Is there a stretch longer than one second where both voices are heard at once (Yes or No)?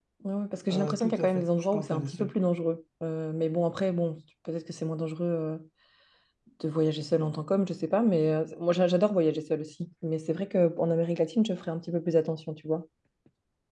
Yes